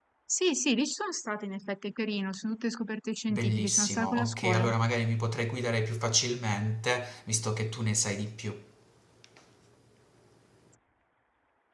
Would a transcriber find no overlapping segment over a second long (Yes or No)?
No